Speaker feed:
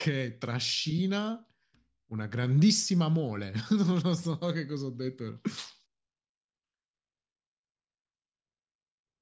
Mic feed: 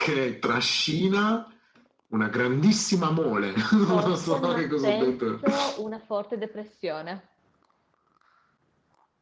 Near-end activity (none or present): present